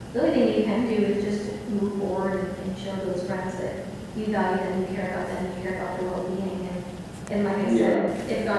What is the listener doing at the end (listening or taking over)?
listening